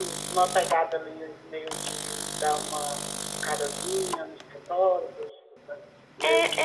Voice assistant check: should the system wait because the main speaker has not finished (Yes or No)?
No